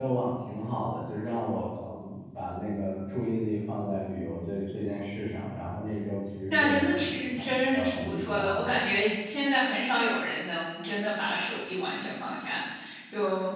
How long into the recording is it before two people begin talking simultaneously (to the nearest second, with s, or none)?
7 s